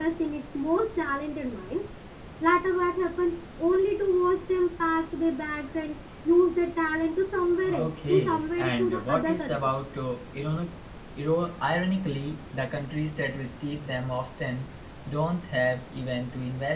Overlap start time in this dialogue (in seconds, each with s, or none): 7.6 s